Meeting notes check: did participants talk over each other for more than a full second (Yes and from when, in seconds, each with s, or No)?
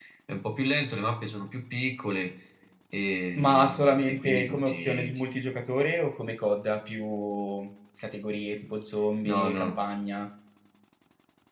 Yes, from 3.4 s